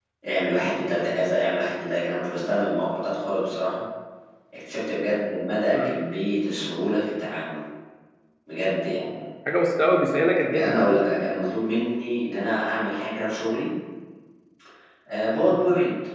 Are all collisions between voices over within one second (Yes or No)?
Yes